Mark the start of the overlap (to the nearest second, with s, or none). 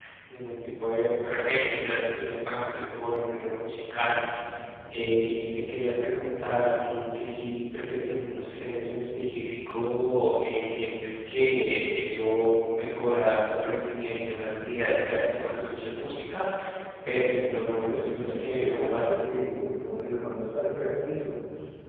17 s